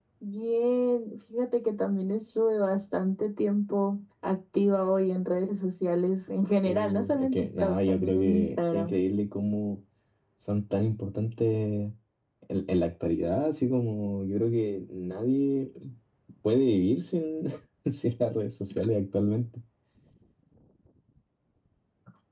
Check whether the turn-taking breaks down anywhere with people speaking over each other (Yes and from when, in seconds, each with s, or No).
Yes, from 6.6 s